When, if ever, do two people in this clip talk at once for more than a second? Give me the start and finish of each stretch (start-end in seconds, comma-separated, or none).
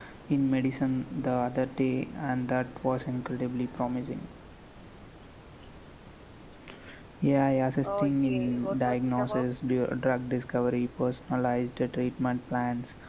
7.8-9.4